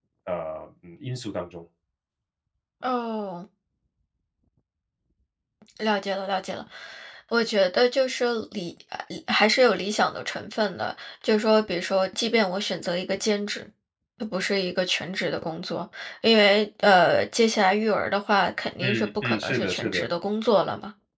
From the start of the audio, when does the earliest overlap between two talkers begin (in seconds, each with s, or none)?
18.8 s